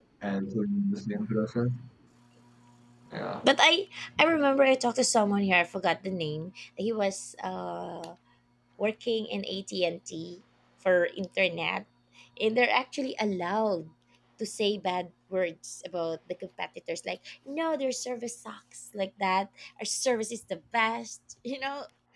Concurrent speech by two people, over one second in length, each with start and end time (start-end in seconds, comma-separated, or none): none